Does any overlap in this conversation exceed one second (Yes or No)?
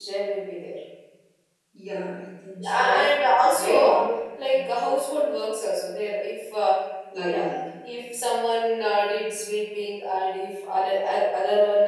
No